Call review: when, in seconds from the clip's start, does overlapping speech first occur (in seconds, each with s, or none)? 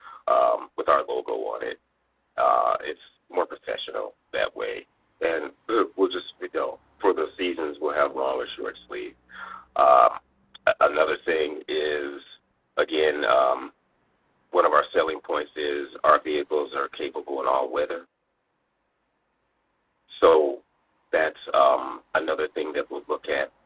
none